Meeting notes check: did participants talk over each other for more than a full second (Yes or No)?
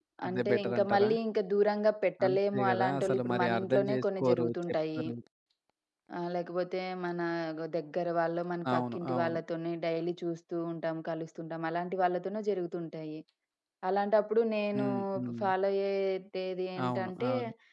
Yes